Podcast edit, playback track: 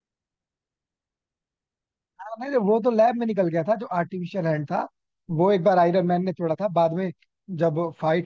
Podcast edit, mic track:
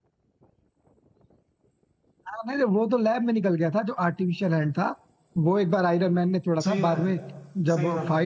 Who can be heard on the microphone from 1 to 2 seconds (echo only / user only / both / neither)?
neither